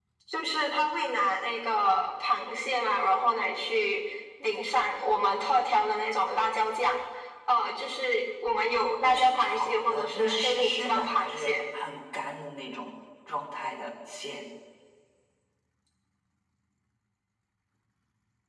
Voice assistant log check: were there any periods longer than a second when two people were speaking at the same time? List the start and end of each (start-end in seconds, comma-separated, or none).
9.0-11.6